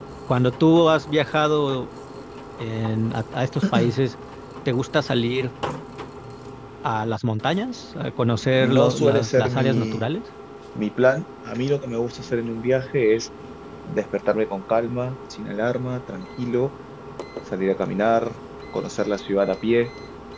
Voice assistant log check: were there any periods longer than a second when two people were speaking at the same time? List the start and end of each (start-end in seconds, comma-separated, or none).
8.6-10.1